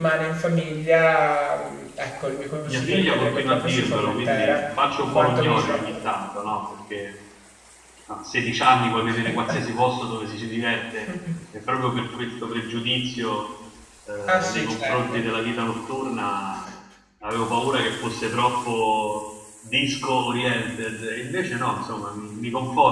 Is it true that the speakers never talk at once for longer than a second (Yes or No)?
No